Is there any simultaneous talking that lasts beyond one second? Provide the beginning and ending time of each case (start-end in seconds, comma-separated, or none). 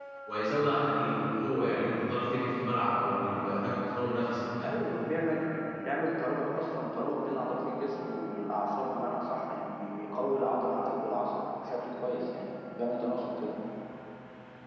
none